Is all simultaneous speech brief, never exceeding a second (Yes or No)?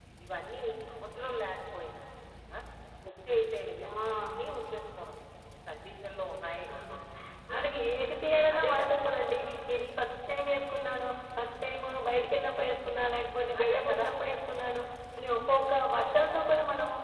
Yes